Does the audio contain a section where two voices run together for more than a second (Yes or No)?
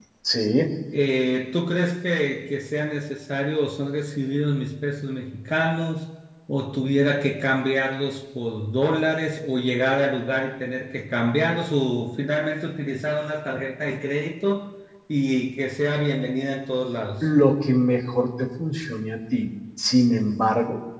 No